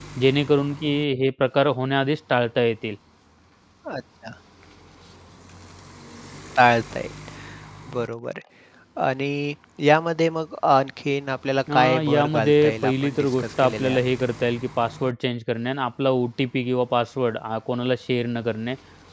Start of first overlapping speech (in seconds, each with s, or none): 11.7 s